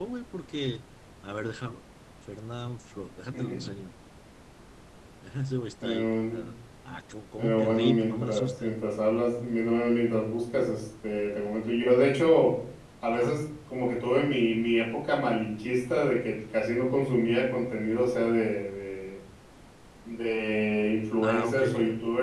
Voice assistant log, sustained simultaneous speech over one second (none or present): present